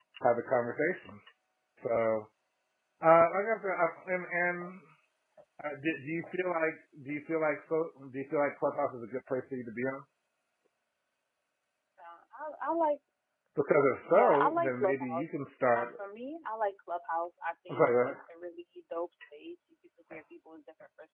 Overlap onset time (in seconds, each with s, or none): 14.0 s